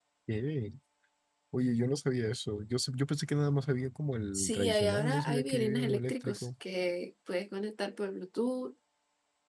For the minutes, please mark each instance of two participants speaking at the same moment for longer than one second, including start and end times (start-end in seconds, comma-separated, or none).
4.3-6.5